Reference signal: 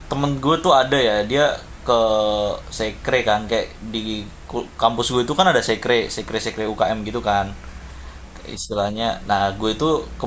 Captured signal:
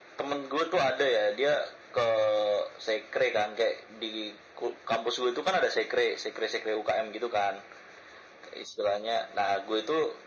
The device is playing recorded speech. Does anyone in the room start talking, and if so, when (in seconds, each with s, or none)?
none